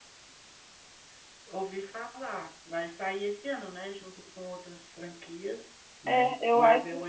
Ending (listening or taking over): taking over